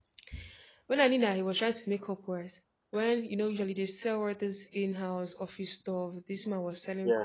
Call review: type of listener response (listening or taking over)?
listening